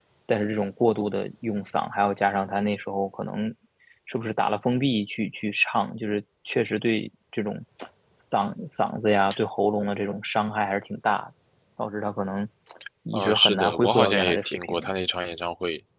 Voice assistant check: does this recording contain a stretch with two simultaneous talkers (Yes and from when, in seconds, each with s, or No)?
Yes, from 13.1 s